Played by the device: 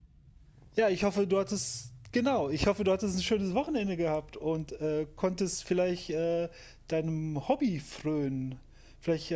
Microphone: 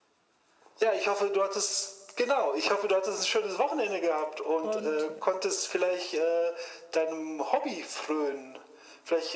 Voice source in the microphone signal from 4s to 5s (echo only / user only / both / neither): both